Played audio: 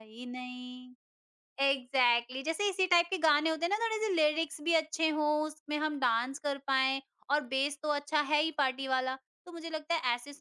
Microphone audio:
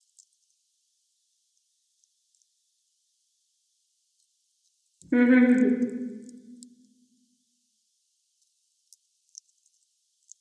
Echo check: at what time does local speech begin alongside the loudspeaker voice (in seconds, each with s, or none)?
5.1 s